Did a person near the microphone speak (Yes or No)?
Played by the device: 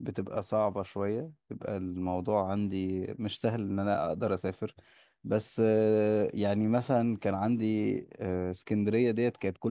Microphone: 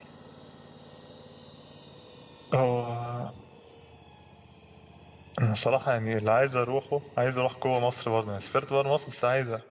Yes